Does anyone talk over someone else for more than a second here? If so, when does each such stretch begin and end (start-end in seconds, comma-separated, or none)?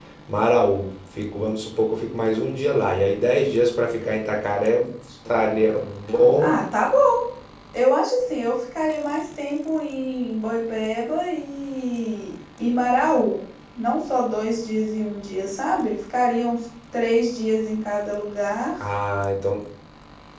none